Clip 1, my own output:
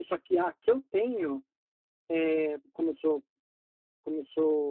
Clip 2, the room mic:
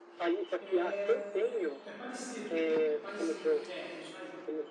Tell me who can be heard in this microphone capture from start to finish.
both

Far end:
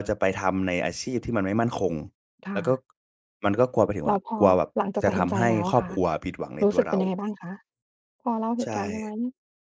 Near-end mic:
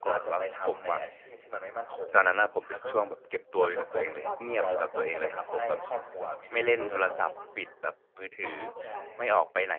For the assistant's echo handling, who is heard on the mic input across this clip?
both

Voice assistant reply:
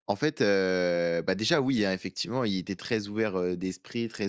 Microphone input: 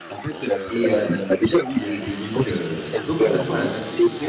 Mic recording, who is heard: both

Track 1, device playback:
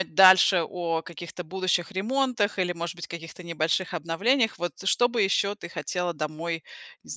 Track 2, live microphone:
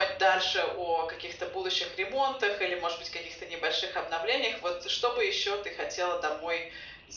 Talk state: echo only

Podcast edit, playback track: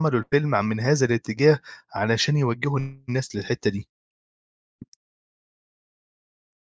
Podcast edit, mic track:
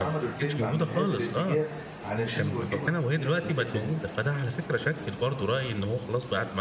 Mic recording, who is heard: both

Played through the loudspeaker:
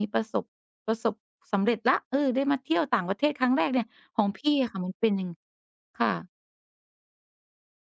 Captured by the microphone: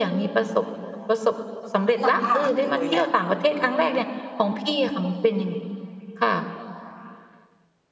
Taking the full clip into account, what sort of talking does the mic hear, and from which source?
both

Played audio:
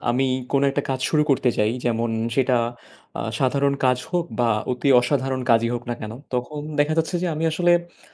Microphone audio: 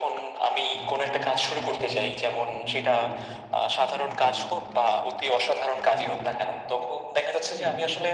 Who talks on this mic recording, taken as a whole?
both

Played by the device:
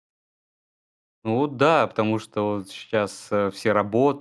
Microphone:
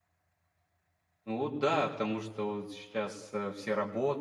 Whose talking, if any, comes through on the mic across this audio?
echo only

